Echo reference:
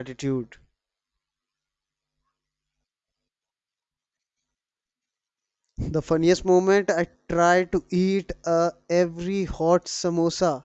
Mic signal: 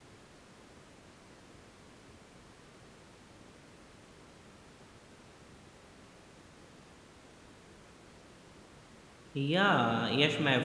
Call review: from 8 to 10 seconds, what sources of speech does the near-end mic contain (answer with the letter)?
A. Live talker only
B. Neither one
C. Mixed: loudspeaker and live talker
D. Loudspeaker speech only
A